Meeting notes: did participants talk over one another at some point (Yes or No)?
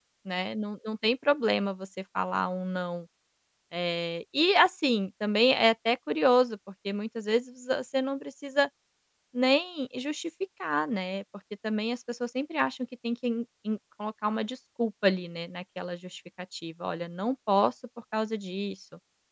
No